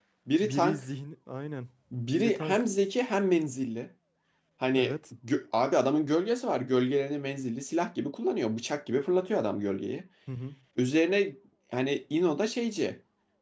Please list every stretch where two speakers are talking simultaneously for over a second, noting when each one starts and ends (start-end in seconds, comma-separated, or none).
none